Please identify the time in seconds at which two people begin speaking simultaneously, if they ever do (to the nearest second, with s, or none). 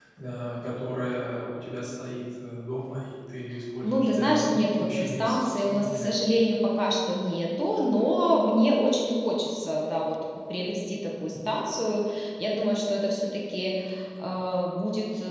4 s